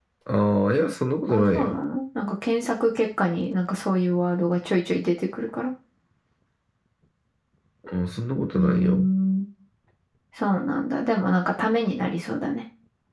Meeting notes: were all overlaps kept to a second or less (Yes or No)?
Yes